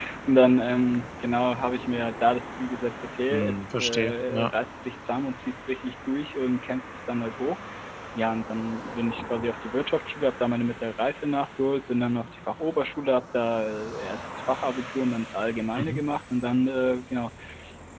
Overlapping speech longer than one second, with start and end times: 3.3-4.5

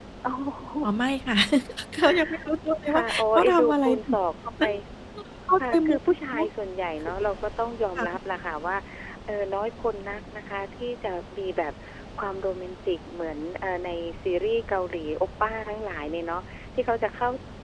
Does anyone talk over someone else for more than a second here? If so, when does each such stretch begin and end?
2.9-4.2

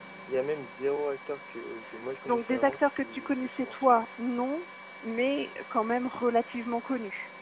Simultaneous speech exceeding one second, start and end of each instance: 2.3-4.0

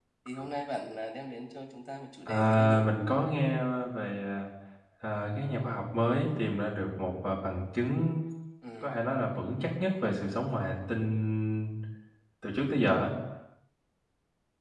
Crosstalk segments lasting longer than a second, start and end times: none

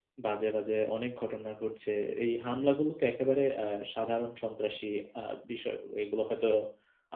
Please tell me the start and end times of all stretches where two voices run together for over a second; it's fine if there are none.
none

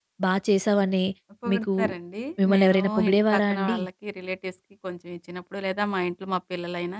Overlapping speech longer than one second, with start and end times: 2.4-3.8

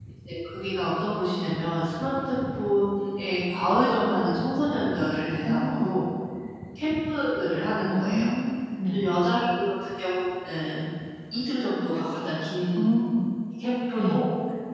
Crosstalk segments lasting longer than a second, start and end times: none

